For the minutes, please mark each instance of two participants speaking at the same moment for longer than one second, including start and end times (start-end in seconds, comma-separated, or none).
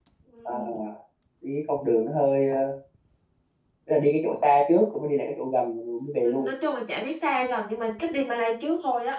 none